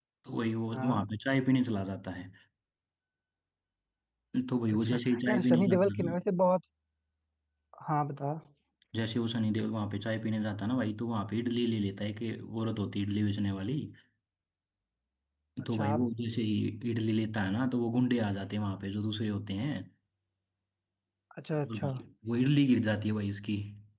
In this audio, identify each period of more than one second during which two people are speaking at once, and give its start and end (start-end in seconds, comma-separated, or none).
4.7-6.1